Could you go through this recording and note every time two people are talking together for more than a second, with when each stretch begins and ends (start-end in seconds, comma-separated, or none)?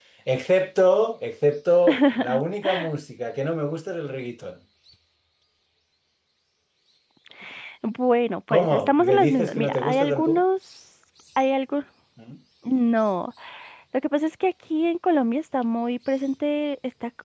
8.5-10.4